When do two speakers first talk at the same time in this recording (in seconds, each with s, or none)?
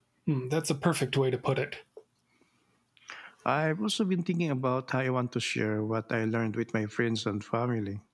none